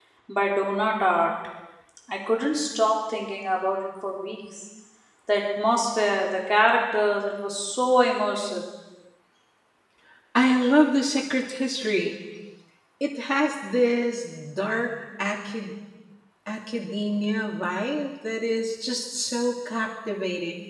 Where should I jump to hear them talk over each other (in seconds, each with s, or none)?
none